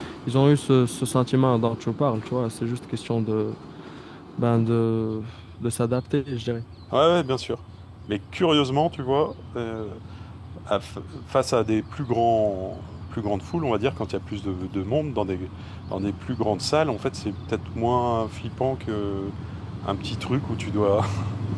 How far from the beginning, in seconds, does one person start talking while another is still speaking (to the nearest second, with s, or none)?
none